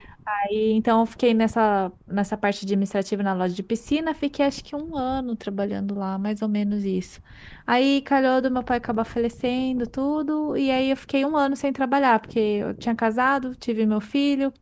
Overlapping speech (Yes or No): No